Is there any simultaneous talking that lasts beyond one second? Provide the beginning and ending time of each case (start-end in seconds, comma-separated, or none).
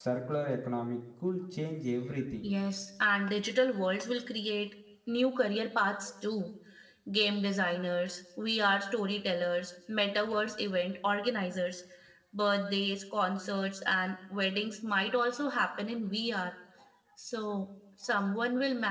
none